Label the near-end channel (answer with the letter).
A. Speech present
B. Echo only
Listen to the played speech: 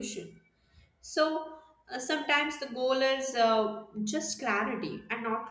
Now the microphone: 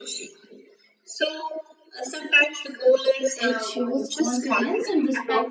A